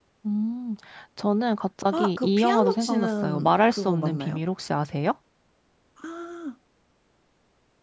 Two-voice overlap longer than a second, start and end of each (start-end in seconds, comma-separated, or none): 1.9-4.4